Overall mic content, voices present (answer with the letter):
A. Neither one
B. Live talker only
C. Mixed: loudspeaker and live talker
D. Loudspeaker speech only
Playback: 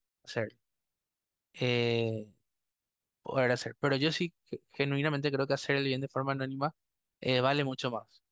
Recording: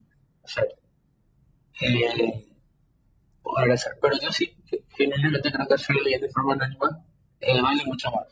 D